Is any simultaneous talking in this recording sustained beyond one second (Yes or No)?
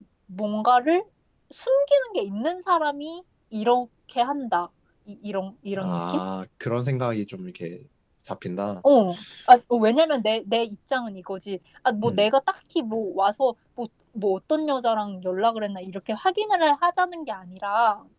No